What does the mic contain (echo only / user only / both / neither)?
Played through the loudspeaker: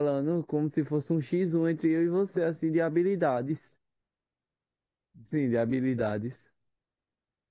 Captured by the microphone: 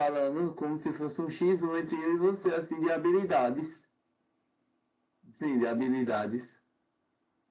echo only